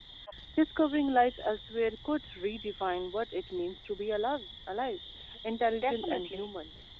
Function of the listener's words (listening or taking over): taking over